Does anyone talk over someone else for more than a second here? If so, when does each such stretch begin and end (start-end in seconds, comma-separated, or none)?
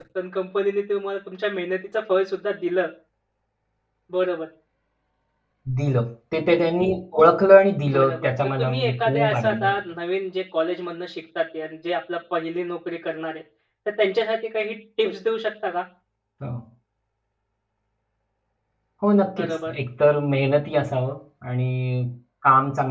7.9-9.8